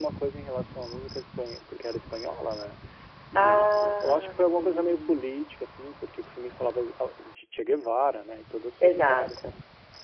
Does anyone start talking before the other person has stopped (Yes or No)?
Yes